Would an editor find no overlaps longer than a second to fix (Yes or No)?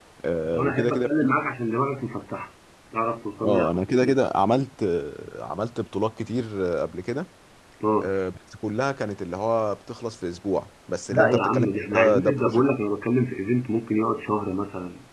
No